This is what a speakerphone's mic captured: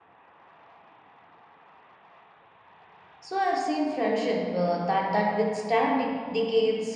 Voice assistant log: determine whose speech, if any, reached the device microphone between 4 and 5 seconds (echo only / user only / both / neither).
user only